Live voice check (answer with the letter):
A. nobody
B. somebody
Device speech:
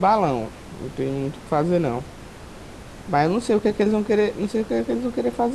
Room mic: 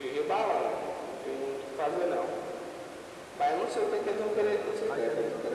B